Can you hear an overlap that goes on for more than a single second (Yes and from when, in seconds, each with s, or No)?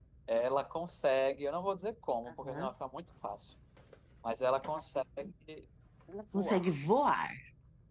No